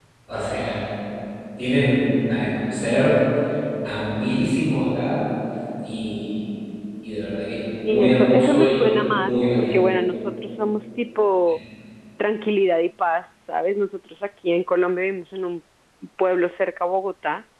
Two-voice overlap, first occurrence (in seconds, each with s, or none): 7.8 s